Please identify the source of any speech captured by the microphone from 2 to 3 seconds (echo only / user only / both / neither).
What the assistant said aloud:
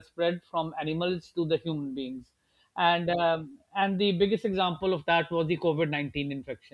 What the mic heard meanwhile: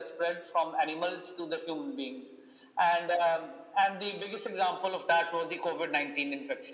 echo only